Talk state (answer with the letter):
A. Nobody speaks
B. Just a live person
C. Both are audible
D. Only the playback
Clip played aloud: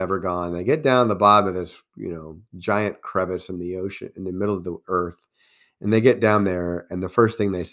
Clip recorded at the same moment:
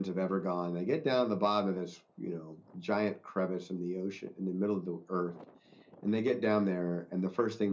D